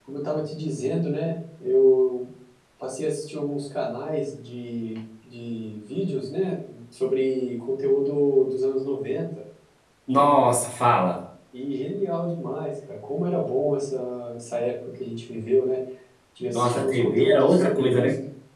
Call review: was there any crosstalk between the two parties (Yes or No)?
Yes